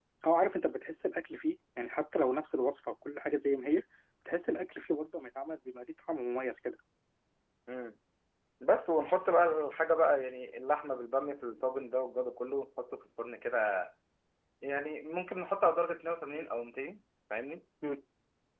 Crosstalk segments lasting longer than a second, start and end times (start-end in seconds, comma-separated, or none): none